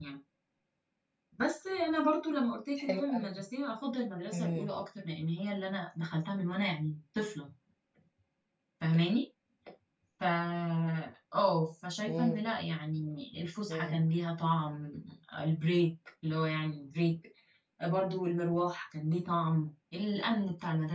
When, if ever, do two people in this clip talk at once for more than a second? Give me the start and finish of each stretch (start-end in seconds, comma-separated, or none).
none